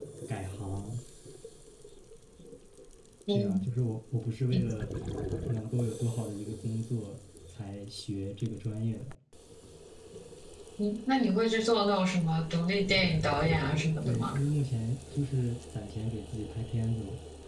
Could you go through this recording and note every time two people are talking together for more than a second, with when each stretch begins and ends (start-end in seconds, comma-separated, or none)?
none